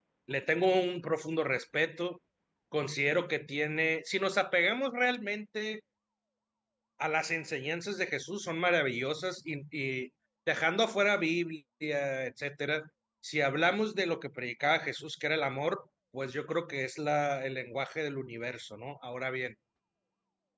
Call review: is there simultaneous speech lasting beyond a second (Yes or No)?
No